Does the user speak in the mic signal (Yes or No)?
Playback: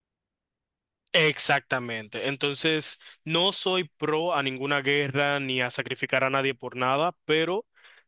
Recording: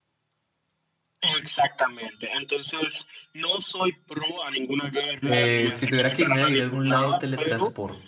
Yes